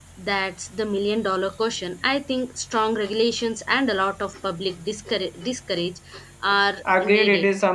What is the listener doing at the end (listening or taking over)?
taking over